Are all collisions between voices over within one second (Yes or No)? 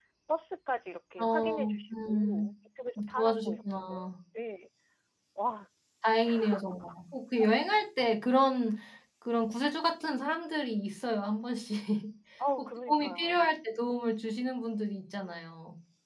No